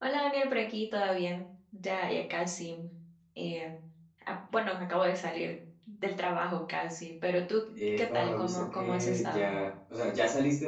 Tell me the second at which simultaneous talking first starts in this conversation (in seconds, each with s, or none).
7.8 s